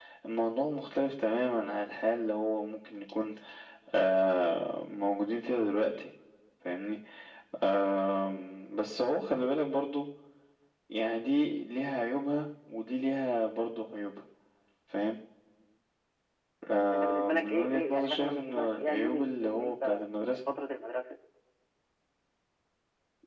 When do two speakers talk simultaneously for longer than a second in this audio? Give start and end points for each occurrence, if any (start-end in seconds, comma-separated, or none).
16.9-20.0